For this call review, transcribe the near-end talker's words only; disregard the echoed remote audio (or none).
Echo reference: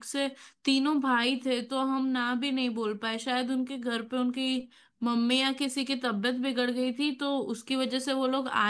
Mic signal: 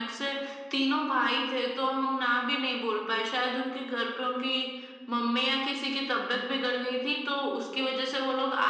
none